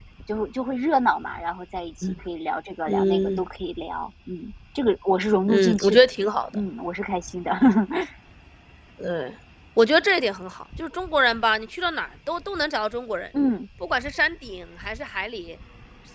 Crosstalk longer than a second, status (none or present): none